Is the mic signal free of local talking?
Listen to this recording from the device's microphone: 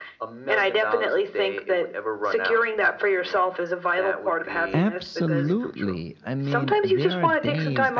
No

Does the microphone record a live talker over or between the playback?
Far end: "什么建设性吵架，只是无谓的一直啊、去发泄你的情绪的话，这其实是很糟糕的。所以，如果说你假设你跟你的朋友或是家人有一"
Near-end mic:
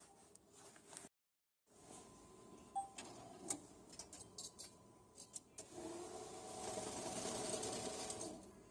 No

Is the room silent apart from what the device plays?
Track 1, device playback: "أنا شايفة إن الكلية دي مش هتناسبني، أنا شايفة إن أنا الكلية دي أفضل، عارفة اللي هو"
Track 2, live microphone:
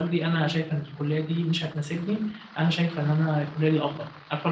Yes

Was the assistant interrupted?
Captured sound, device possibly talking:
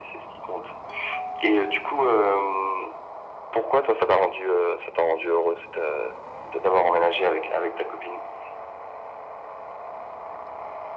No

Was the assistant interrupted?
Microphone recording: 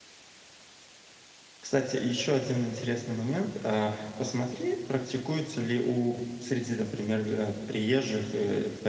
Yes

